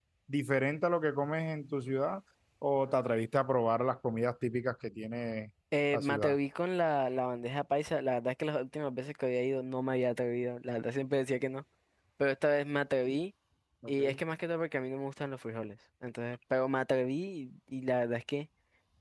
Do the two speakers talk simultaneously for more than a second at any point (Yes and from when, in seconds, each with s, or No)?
No